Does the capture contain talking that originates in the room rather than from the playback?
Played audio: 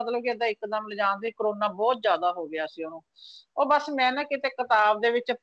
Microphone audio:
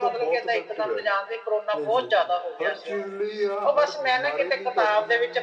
Yes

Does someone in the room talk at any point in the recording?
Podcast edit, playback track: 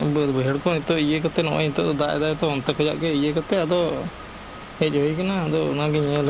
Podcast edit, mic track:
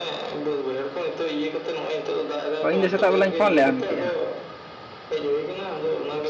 Yes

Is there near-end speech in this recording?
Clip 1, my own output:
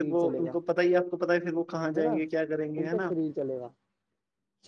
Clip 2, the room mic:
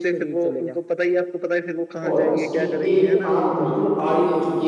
Yes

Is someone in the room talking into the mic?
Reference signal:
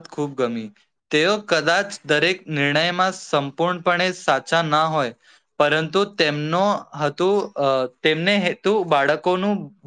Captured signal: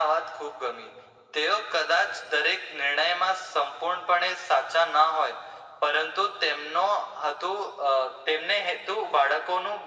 No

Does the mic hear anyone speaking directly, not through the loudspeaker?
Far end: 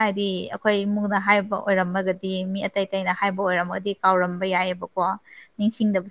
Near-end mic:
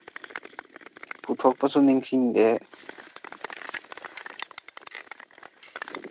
Yes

